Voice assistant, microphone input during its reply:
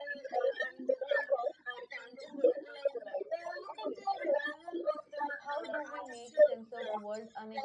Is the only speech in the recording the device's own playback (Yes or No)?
No